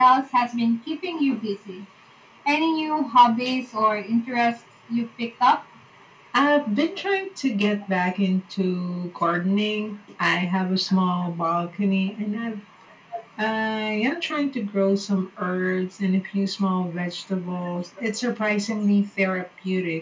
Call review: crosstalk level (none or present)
none